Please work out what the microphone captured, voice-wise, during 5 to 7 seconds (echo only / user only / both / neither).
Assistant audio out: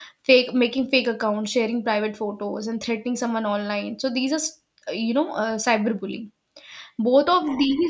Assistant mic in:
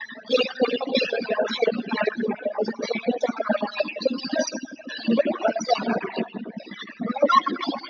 echo only